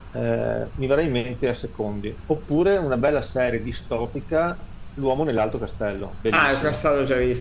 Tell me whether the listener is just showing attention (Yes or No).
No